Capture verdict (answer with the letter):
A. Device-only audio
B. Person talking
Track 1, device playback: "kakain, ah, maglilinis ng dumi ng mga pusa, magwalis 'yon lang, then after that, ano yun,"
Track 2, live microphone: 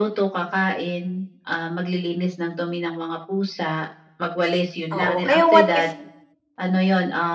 B